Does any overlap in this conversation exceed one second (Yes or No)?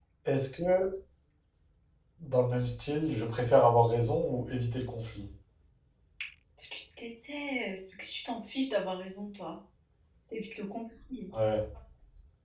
No